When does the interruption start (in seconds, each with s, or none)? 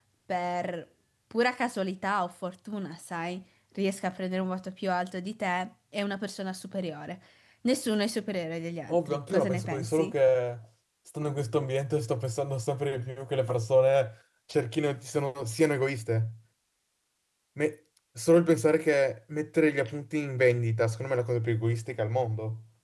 8.9 s